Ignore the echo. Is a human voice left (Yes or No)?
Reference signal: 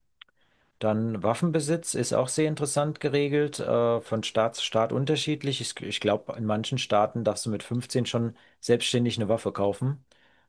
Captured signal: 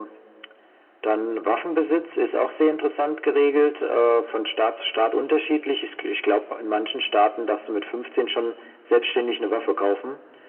No